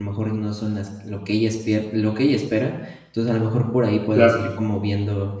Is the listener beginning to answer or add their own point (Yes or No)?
No